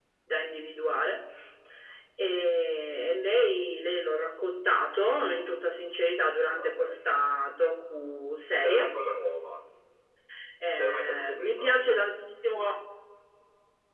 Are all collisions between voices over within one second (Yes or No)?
No